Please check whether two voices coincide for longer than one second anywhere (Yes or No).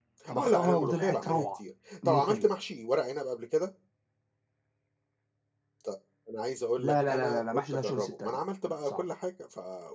Yes